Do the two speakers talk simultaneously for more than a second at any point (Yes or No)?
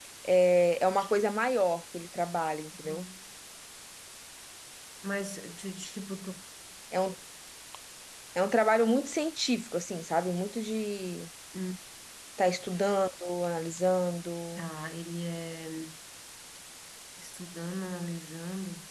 No